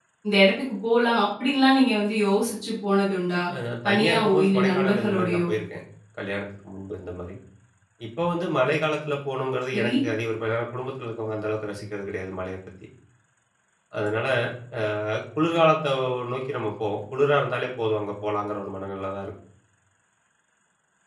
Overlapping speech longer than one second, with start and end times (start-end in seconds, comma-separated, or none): 3.9-5.5